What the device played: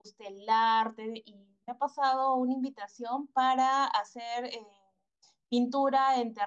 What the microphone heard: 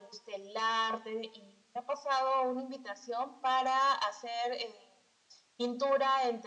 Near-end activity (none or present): none